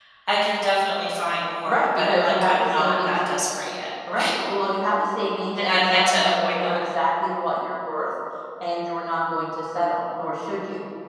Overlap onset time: 1.7 s

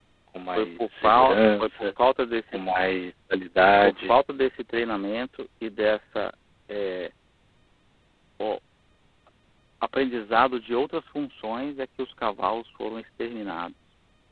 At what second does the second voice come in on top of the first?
0.6 s

